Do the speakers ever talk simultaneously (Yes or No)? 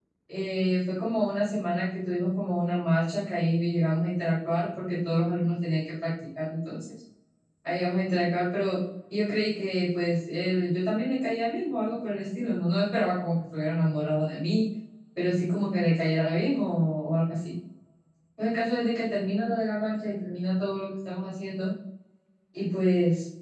No